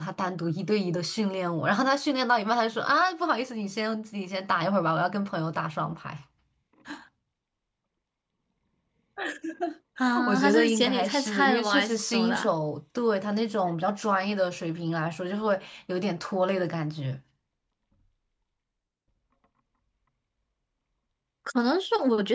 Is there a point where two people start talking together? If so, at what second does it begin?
10.2 s

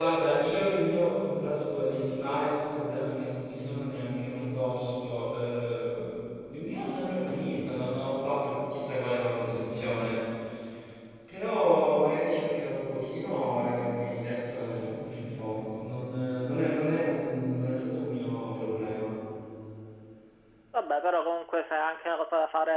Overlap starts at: none

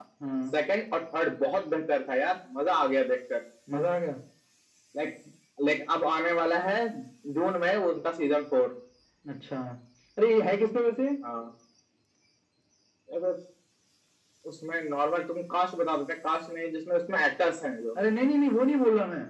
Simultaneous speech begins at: none

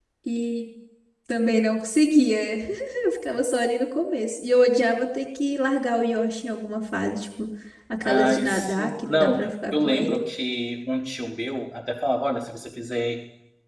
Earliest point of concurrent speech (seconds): 8.1 s

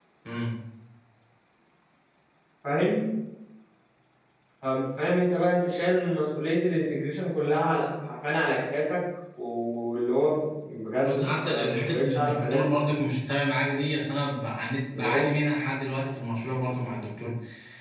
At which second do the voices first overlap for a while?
11.0 s

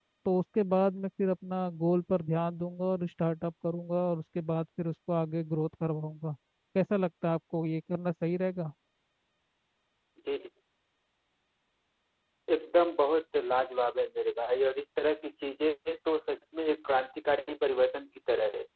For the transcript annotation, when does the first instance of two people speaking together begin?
none

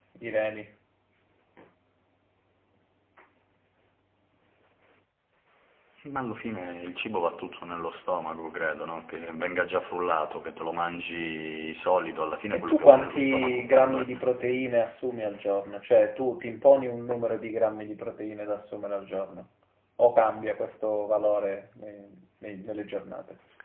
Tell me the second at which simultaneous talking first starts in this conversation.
12.5 s

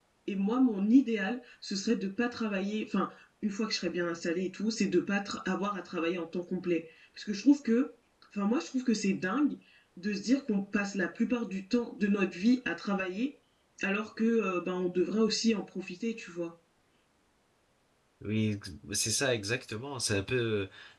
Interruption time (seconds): none

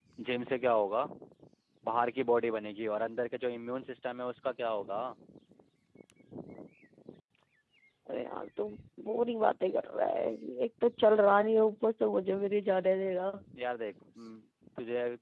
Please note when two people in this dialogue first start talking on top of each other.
none

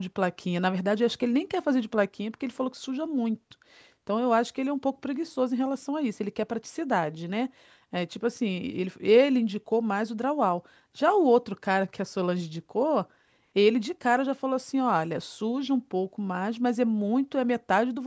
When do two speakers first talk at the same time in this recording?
none

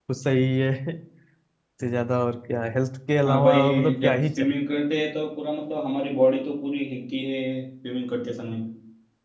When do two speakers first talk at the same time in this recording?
3.2 s

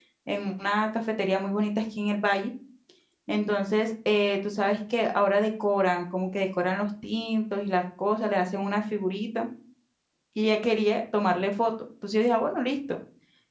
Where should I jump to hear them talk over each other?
none

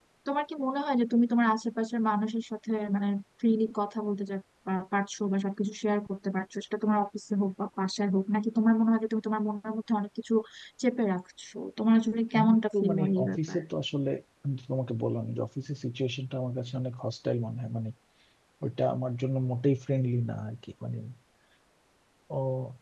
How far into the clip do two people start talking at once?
12.3 s

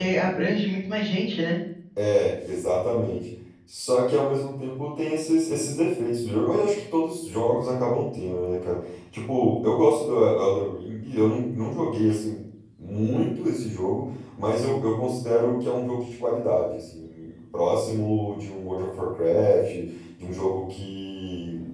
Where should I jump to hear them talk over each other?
none

